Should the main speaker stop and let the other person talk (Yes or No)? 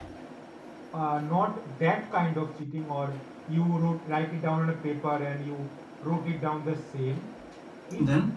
No